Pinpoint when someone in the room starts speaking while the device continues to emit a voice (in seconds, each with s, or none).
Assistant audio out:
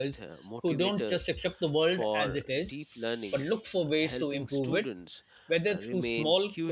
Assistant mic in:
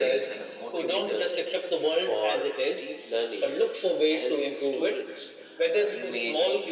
none